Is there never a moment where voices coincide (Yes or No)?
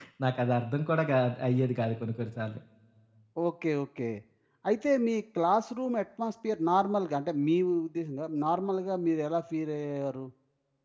Yes